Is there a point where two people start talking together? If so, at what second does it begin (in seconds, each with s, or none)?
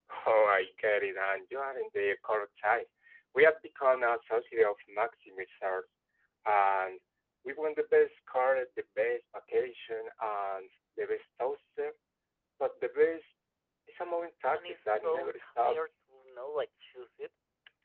14.5 s